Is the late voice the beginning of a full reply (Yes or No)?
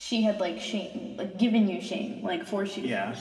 Yes